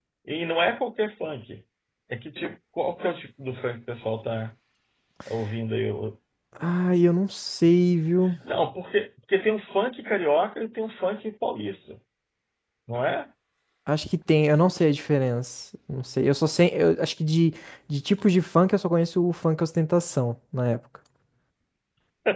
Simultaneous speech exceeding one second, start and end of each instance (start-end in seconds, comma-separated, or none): none